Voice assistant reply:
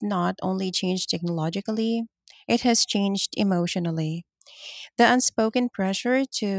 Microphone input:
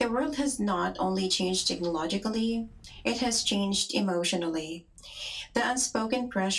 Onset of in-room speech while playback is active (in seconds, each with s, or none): none